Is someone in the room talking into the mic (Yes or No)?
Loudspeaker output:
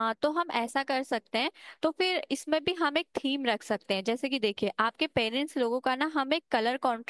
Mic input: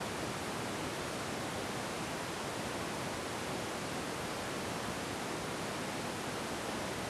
No